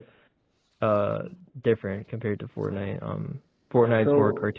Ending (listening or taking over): listening